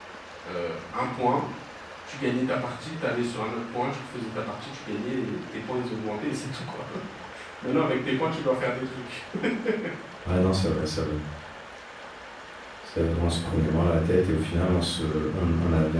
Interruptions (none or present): none